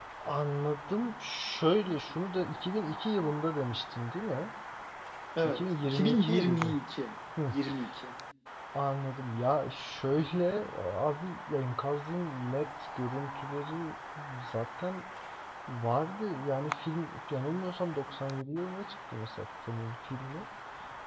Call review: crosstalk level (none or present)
present